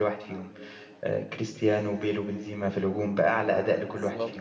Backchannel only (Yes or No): No